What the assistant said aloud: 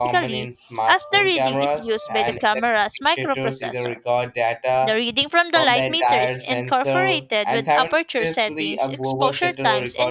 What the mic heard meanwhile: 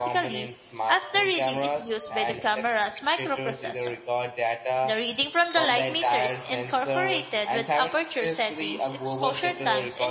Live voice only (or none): none